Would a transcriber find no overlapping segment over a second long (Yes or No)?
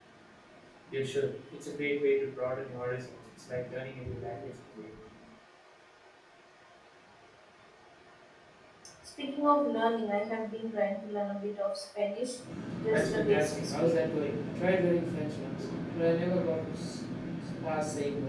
No